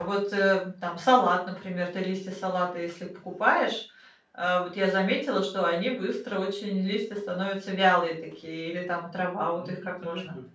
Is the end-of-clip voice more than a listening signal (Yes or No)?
Yes